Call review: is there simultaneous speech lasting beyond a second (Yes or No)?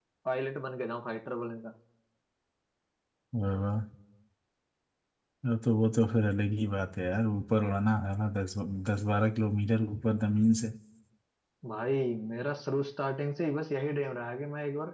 No